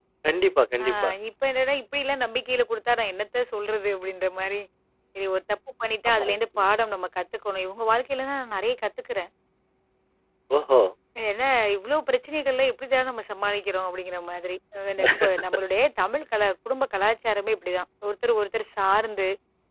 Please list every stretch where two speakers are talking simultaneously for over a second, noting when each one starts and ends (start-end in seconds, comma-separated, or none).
none